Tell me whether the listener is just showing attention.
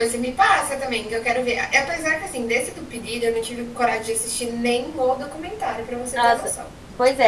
No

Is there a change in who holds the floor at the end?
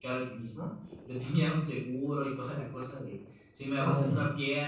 No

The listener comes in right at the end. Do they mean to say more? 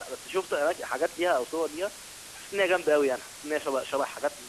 Yes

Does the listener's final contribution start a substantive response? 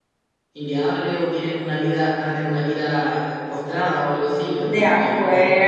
Yes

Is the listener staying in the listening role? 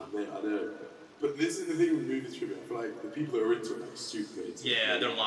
No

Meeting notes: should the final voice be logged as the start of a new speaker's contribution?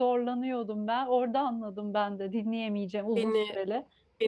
Yes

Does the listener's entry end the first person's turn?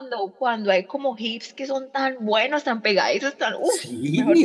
Yes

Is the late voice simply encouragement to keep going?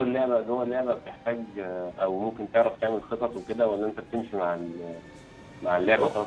Yes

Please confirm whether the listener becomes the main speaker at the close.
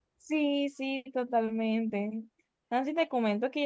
No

